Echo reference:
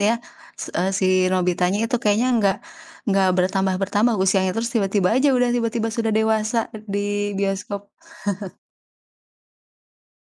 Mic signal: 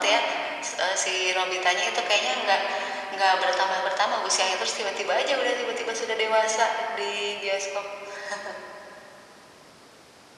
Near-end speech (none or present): none